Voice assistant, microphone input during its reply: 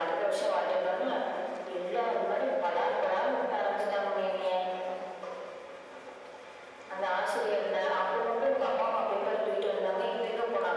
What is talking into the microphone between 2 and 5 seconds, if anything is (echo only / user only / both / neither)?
echo only